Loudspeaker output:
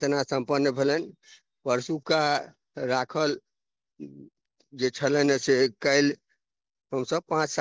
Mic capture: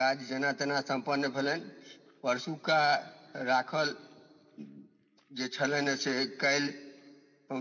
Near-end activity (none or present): none